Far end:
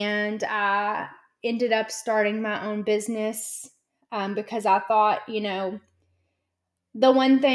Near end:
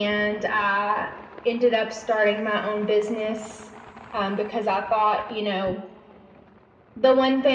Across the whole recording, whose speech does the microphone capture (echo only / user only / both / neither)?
echo only